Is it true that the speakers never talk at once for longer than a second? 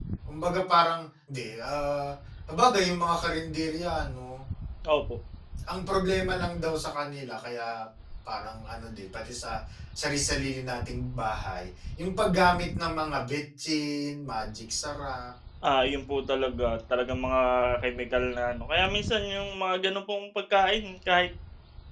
Yes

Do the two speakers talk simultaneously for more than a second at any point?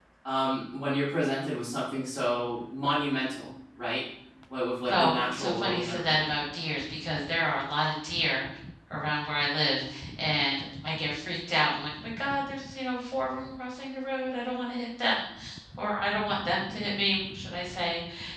Yes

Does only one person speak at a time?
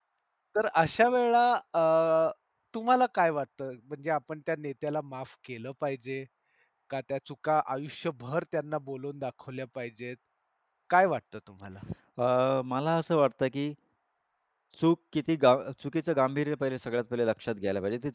Yes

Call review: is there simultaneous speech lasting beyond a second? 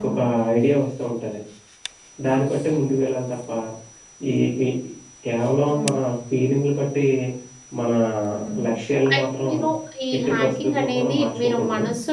Yes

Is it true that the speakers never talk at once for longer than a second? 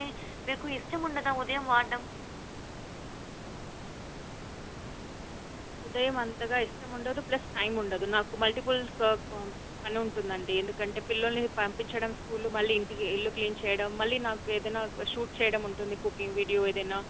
Yes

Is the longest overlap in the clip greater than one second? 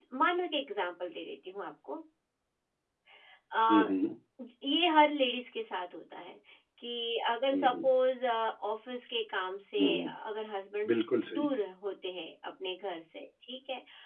No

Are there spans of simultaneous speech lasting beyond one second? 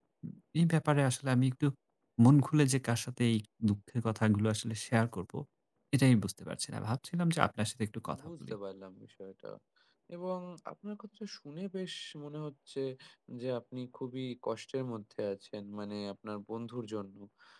No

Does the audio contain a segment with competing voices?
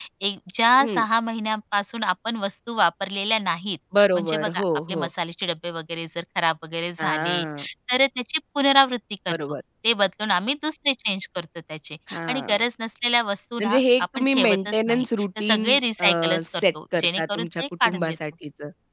Yes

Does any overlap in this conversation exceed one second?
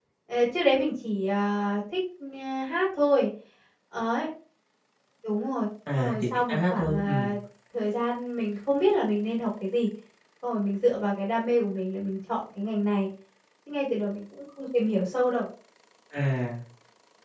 Yes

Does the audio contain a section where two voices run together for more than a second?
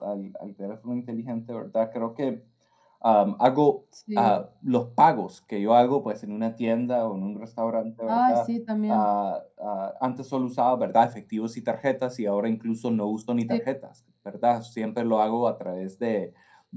No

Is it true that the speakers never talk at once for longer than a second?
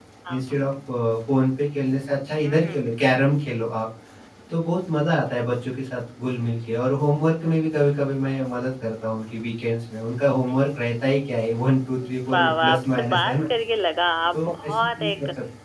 No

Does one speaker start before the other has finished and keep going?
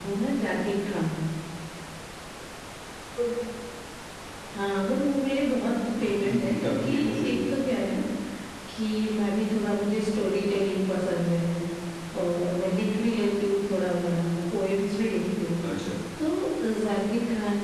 Yes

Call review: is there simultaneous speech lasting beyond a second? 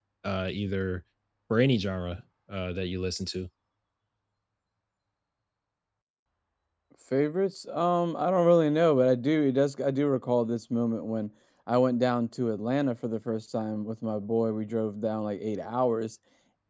No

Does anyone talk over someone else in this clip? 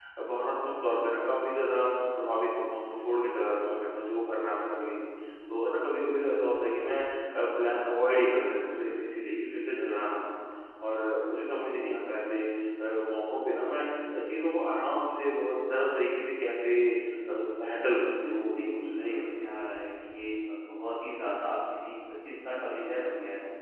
Yes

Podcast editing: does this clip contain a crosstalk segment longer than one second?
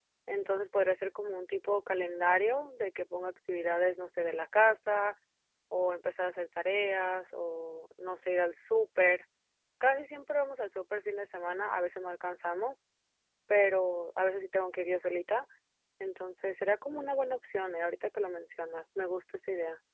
No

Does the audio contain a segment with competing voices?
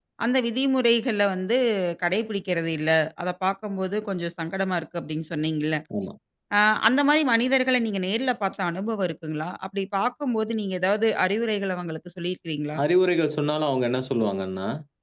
No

